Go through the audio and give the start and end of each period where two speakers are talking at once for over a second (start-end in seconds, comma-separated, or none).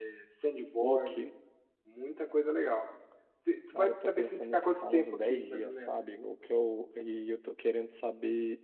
3.7-6.1